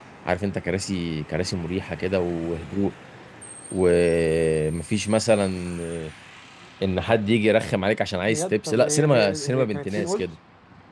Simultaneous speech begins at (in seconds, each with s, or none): 8.3 s